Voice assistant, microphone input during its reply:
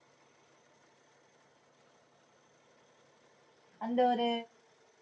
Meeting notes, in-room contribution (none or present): present